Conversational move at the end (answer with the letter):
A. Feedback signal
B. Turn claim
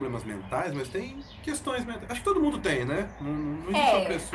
B